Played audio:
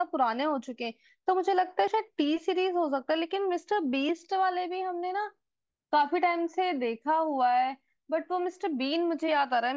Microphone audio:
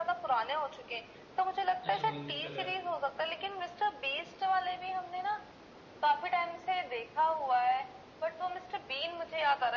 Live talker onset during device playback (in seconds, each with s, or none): 1.8 s